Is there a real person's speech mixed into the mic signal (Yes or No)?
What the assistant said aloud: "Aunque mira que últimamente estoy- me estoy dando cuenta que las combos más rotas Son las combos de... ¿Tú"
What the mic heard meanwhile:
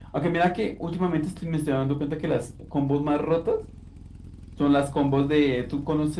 No